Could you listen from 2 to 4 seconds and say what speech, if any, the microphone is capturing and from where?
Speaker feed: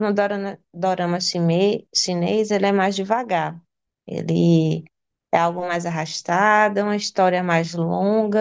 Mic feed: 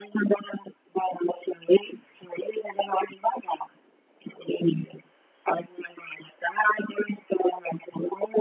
echo only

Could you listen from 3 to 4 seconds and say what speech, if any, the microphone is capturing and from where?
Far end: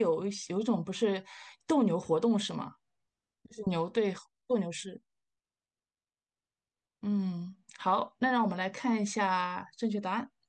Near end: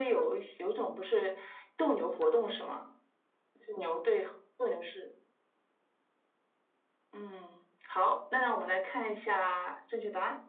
echo only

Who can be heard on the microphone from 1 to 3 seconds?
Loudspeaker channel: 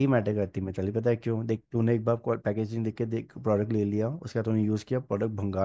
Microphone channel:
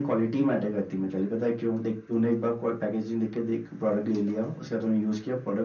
echo only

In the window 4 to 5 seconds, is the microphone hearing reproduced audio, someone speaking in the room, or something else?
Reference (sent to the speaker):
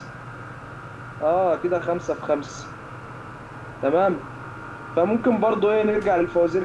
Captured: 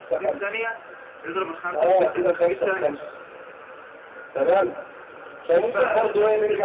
echo only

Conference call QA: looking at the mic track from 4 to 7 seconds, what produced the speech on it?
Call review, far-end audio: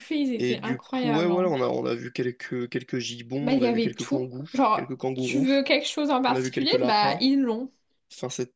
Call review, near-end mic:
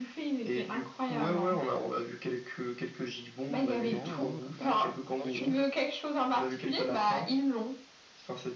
both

